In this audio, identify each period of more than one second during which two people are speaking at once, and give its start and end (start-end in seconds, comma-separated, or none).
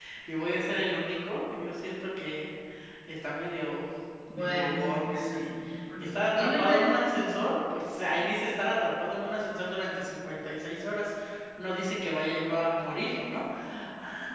4.3-5.5, 6.0-7.3